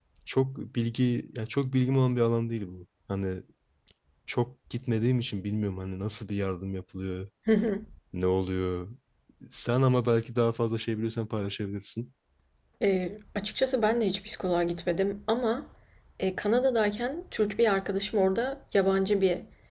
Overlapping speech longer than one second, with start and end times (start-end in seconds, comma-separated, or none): none